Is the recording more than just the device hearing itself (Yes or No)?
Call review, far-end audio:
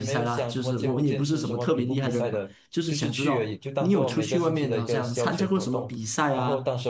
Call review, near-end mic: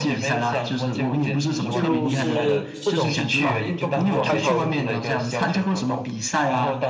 Yes